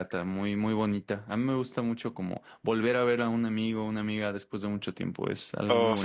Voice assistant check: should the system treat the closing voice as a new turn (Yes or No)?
Yes